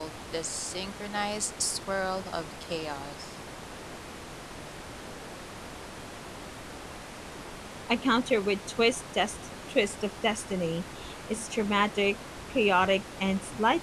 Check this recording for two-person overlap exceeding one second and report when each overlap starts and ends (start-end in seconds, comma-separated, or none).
none